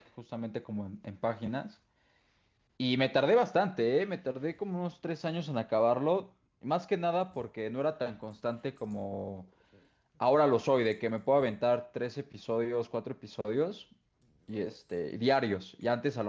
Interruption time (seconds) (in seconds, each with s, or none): none